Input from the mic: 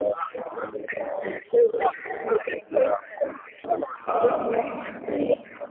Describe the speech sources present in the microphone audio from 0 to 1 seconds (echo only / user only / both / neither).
echo only